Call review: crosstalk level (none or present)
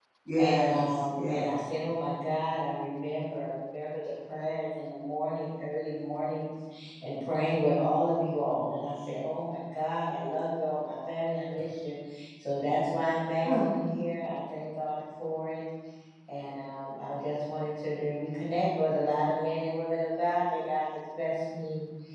present